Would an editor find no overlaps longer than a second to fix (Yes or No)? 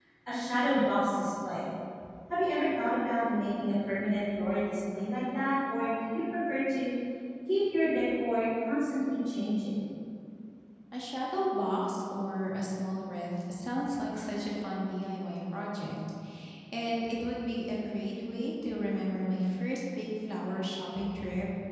Yes